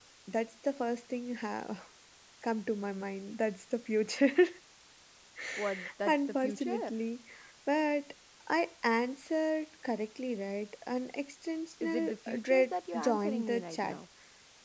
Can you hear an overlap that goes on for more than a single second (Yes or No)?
Yes